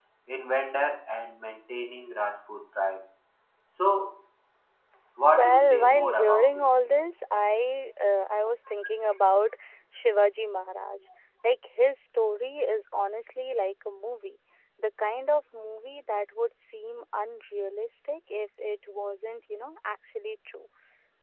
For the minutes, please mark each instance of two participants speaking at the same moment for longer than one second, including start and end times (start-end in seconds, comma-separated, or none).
5.4-6.7